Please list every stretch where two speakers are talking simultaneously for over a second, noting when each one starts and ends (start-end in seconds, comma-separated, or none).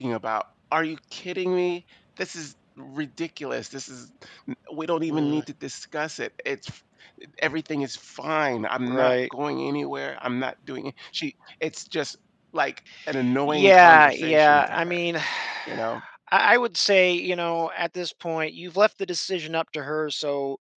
13.5-15.0